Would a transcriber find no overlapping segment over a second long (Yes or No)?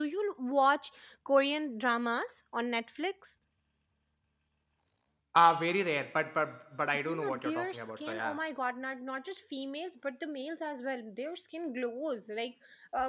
No